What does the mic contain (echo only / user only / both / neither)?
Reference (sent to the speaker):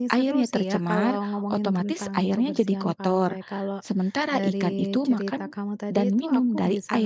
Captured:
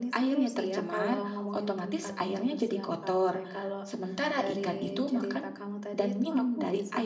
echo only